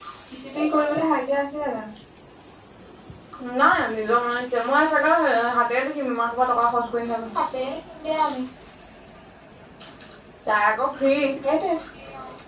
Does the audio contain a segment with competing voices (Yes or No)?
No